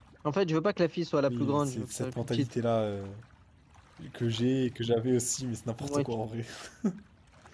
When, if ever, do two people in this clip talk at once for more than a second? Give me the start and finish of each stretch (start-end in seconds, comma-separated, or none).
1.3-2.5